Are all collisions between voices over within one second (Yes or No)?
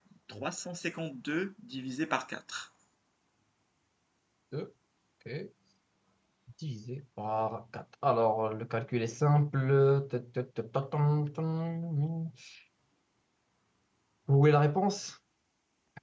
Yes